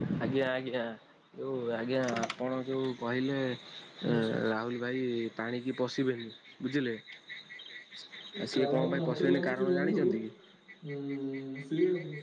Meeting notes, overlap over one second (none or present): present